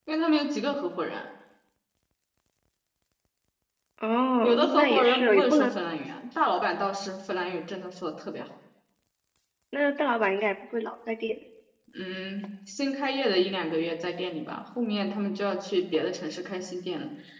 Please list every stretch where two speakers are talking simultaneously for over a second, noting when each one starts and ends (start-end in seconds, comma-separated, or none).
4.4-5.7